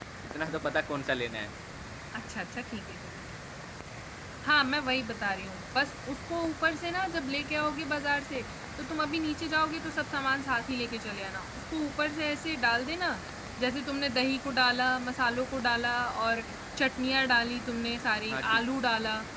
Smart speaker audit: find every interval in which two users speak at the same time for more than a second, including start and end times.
none

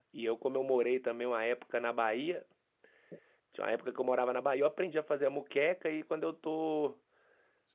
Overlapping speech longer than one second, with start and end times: none

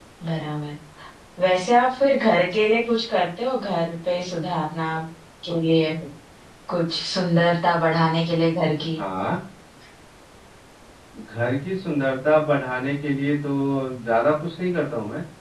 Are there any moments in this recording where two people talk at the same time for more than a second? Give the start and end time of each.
none

